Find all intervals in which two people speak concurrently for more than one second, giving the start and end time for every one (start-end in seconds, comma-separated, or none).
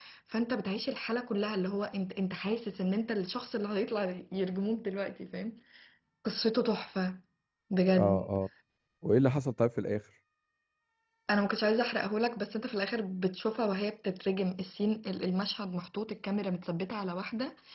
none